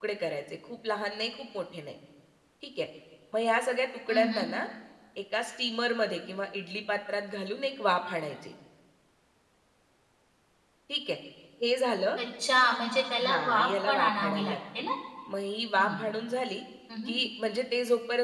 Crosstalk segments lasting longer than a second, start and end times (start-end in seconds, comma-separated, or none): 13.2-14.6